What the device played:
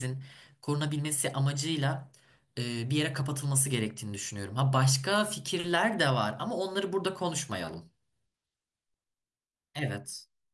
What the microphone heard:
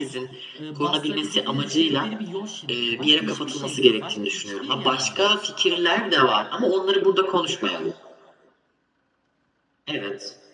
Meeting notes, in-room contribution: present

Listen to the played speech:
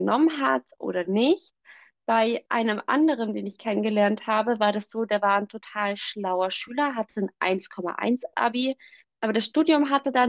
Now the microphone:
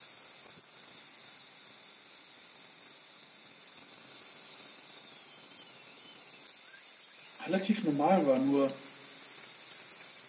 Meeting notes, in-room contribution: present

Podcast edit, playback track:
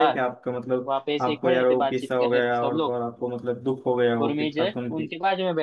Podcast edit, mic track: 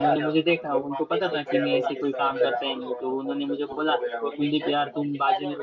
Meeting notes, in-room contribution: present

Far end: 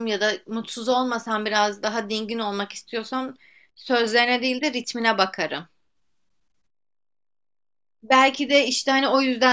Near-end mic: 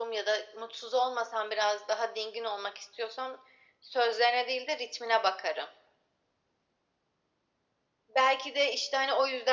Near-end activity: none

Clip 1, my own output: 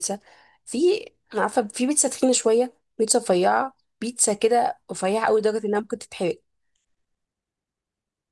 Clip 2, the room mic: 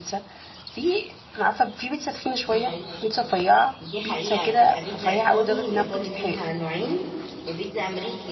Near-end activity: present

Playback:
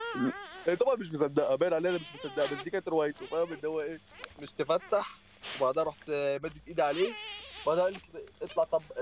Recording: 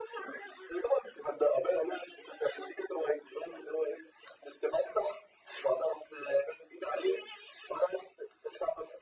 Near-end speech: none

